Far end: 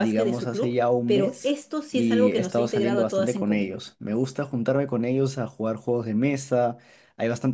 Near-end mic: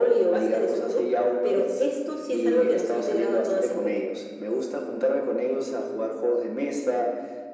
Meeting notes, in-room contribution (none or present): none